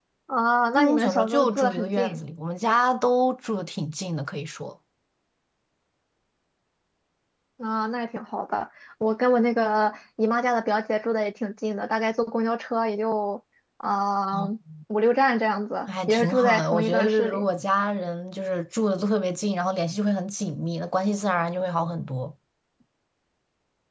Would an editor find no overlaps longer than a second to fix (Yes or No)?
No